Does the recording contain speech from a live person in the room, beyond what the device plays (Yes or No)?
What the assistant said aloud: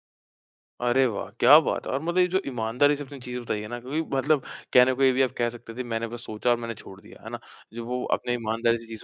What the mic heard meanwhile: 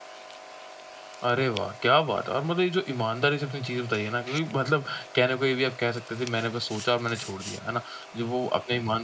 No